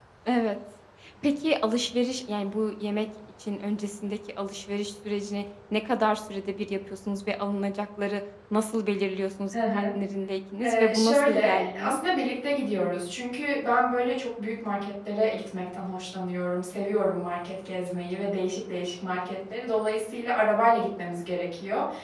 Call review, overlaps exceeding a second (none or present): present